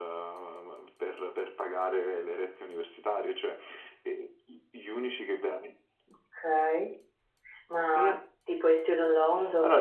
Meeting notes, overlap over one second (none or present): none